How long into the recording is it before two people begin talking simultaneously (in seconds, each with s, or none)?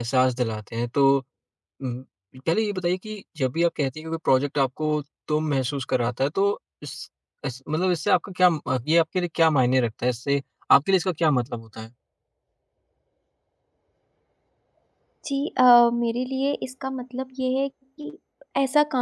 none